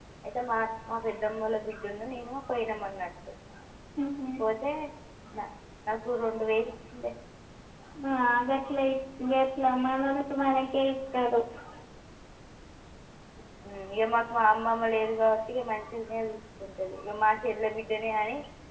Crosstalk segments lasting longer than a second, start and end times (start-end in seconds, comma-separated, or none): none